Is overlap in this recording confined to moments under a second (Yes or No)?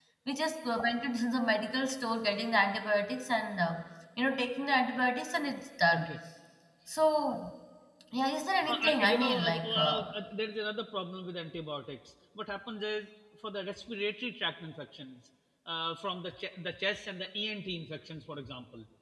No